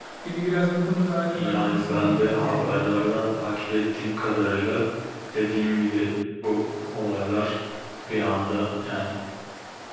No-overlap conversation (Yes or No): No